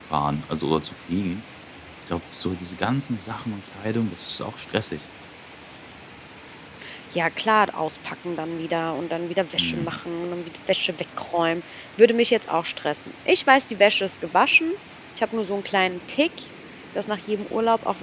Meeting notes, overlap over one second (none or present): none